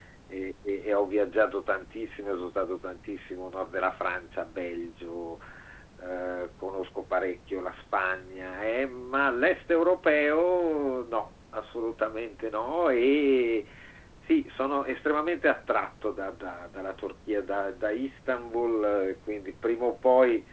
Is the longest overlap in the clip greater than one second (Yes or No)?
No